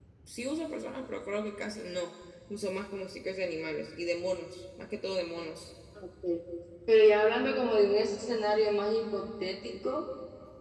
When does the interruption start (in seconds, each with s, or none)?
none